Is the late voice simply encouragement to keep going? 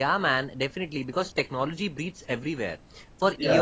Yes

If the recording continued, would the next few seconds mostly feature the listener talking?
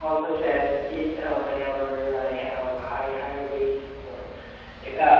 No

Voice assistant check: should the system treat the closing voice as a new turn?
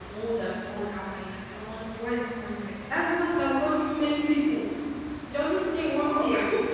No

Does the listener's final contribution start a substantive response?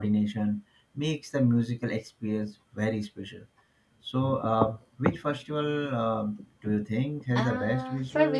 Yes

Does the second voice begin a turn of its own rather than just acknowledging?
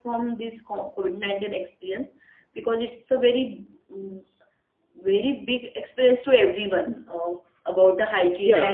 Yes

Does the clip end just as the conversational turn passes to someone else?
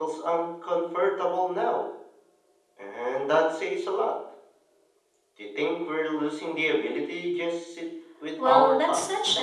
Yes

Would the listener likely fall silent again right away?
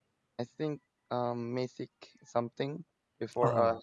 Yes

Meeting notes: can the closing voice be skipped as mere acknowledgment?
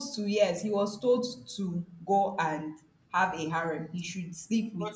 Yes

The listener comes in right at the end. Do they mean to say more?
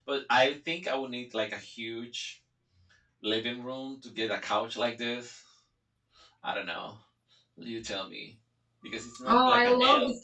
Yes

